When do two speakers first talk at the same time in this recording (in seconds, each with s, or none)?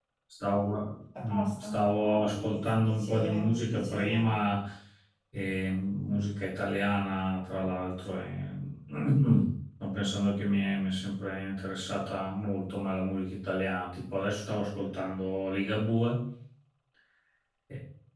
1.2 s